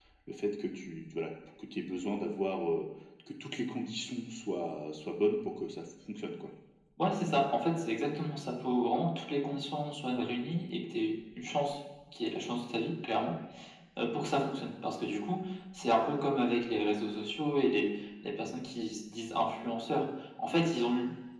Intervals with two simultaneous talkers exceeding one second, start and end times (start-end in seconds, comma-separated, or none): none